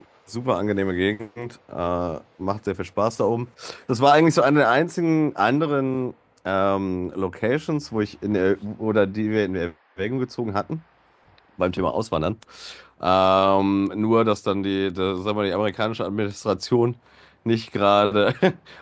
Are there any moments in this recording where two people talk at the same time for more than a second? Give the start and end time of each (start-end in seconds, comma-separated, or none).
none